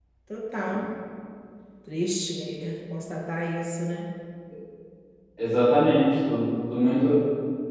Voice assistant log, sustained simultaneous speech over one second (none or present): none